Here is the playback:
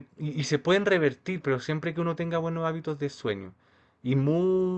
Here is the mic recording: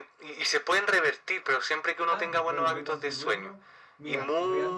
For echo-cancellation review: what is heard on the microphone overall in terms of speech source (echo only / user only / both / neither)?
both